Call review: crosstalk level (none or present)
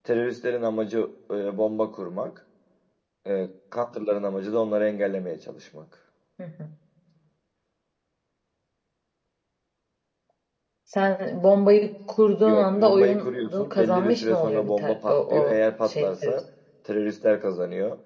present